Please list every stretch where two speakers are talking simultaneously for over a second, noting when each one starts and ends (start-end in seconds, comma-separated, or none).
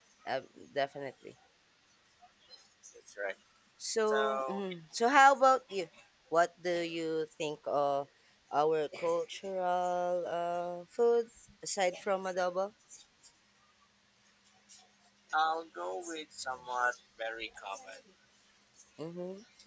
none